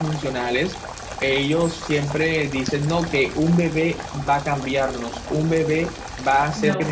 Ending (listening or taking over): listening